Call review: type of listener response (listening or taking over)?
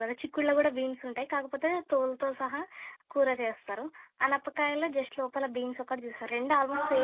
taking over